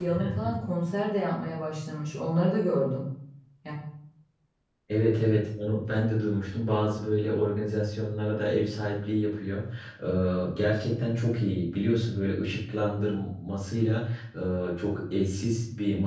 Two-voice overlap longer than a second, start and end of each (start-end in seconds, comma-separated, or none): none